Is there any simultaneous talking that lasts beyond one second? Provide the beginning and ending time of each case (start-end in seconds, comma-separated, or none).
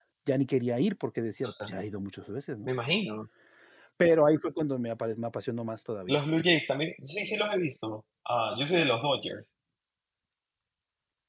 none